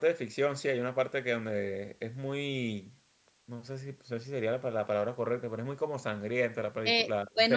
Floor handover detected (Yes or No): Yes